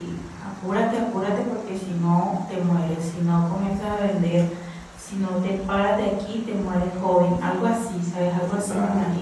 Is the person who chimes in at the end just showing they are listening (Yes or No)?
No